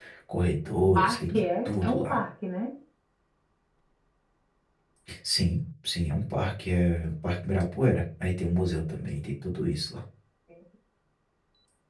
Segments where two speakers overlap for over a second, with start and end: 1.0-2.2

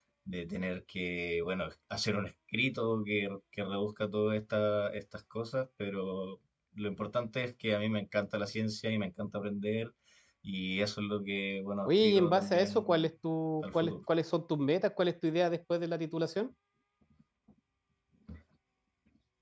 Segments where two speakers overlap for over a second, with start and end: 11.8-13.1

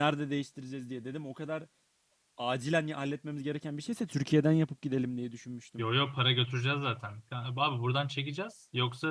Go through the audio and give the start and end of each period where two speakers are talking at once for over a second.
none

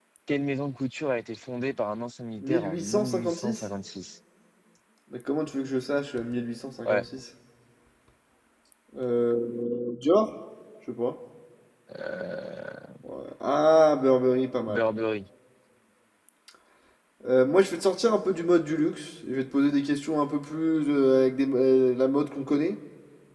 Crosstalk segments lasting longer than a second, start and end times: 2.4-3.6

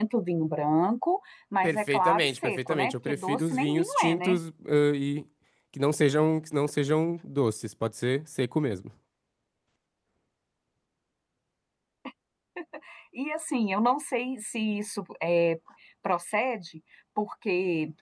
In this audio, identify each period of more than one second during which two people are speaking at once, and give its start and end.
1.6-4.4

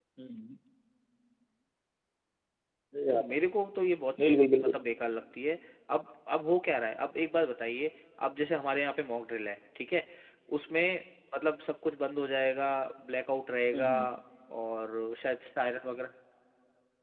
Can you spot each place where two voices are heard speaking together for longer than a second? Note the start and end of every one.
none

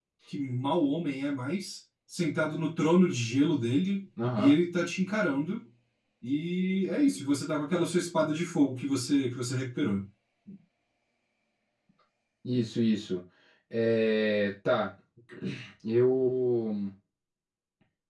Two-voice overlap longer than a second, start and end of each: none

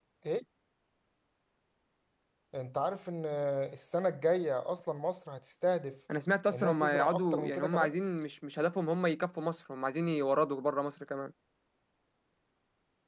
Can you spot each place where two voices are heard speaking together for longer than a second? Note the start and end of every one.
6.5-7.9

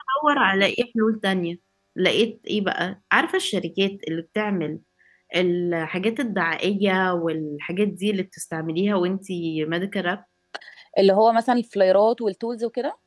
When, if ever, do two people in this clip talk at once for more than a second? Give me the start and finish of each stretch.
none

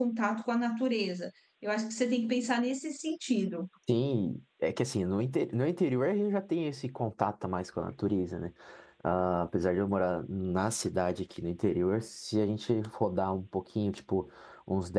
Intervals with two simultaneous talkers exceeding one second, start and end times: none

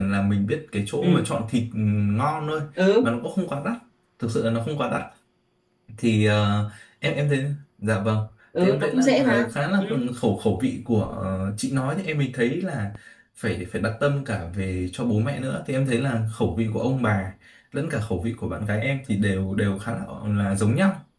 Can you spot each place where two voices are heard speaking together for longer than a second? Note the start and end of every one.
8.6-9.8

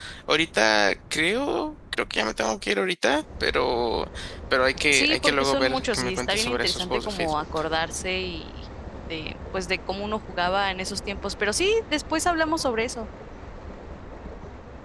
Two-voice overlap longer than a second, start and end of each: 4.9-7.3

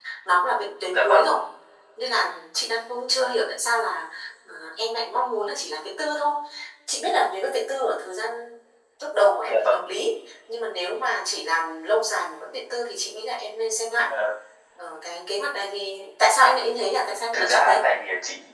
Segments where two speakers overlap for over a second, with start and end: none

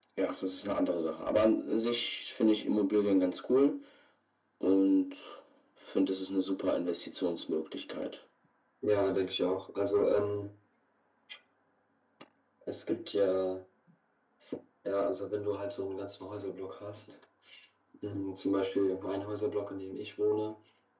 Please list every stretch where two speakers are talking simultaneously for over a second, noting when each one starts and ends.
none

